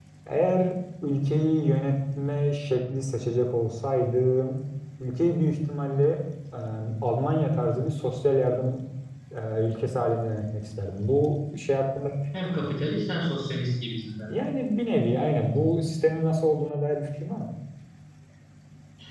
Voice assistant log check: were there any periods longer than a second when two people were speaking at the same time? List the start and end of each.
none

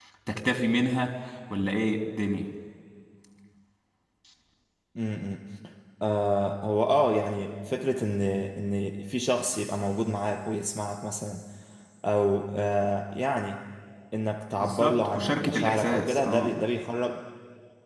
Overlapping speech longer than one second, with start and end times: 14.6-16.5

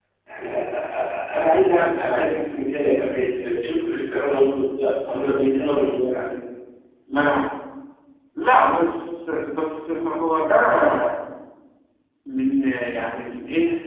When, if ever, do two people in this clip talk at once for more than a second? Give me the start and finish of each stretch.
none

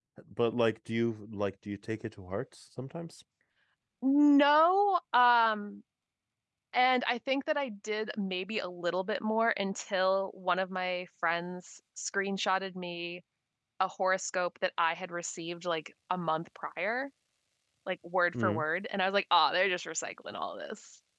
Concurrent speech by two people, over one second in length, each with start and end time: none

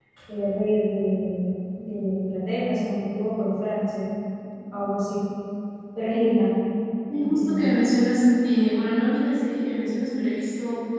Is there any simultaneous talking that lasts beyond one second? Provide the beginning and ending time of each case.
none

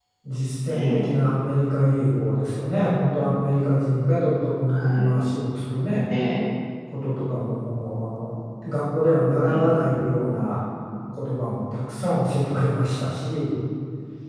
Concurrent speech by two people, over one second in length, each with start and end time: none

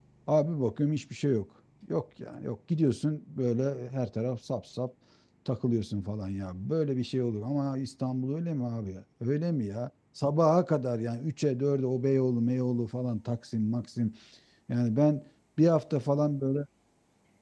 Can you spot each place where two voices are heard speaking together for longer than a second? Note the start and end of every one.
none

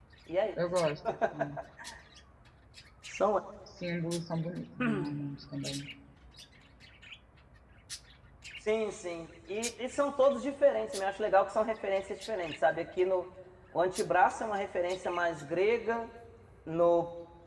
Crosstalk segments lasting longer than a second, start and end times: none

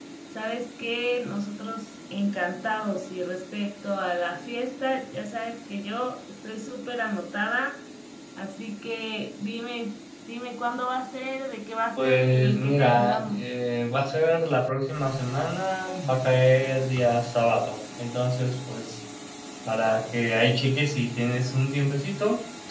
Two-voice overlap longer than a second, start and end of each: 12.0-13.4

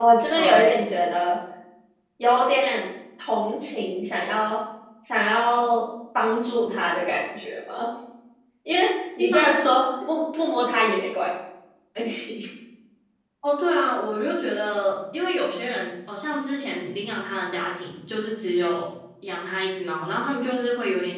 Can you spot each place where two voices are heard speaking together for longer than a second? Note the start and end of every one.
none

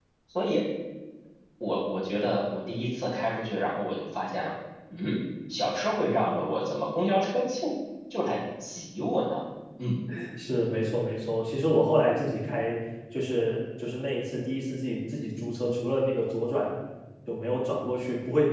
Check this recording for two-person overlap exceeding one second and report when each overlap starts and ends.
none

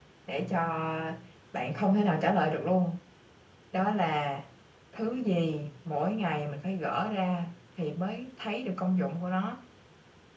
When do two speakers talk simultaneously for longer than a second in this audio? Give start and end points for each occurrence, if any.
none

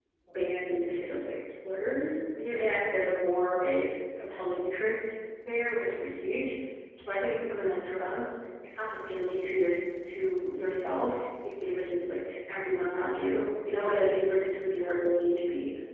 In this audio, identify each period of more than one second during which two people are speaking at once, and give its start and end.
none

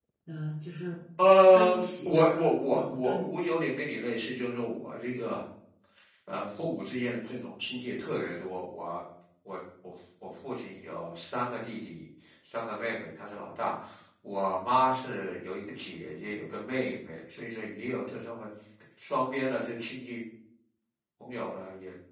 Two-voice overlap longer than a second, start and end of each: 1.4-3.2

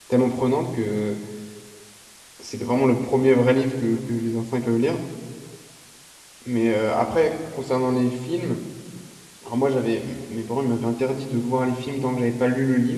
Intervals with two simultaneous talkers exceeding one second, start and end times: none

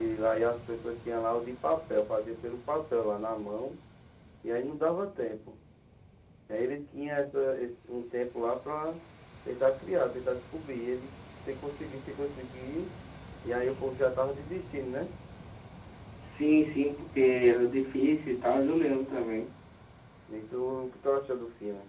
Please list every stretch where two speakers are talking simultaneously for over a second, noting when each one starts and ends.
none

